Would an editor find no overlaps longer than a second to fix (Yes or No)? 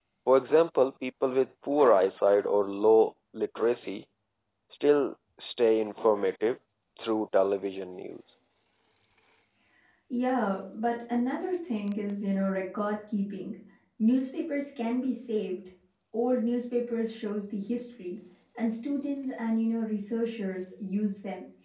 Yes